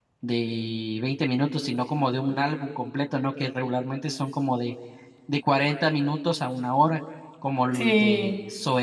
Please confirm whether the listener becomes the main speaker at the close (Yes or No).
No